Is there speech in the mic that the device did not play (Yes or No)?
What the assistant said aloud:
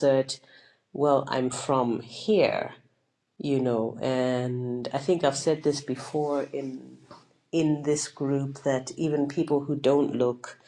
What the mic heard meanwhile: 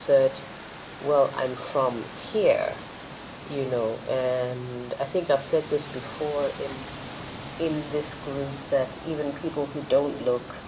No